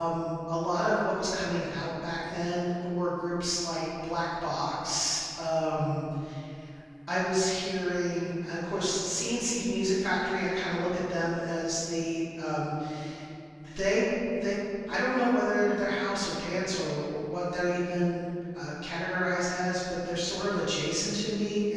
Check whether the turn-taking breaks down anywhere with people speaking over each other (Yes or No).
No